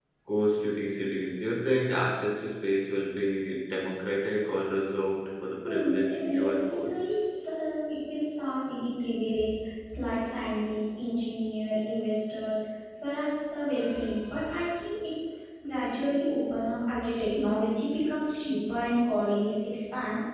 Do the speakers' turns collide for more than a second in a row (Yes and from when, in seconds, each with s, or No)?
Yes, from 5.6 s